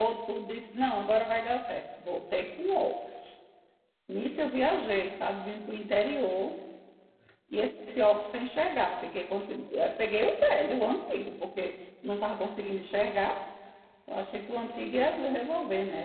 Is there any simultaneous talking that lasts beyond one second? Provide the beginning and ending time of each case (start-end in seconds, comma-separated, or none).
none